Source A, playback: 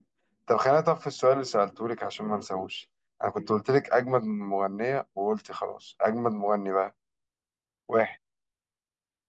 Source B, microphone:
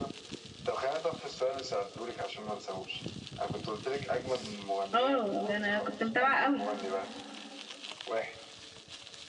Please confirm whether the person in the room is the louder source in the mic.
Yes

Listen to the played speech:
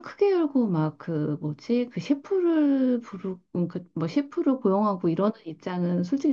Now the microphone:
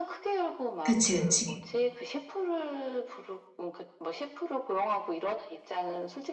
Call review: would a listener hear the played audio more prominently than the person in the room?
No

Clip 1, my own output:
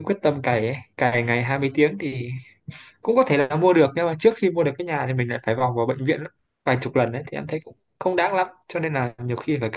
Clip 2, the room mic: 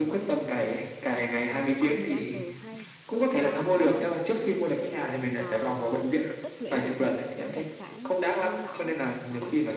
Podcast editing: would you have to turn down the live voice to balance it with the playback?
No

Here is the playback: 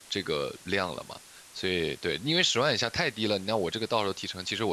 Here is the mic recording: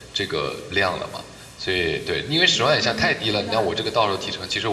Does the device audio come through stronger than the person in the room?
Yes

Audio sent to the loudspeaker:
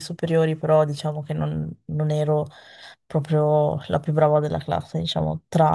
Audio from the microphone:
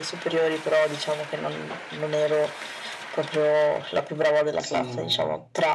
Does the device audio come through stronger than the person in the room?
Yes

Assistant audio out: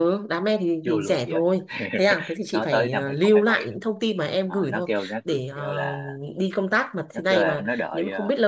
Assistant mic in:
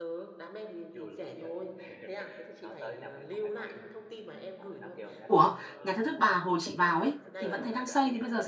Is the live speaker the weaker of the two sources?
No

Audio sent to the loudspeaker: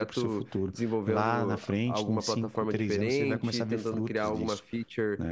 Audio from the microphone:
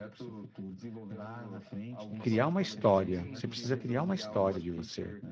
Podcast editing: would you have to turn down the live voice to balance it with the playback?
Yes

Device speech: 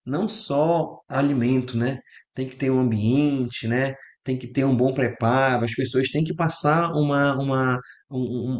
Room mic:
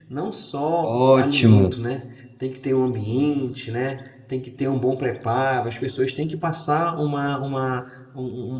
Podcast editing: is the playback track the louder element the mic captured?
No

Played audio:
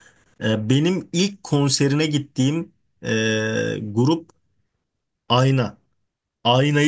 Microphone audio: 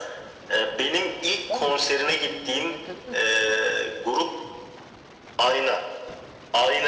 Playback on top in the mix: Yes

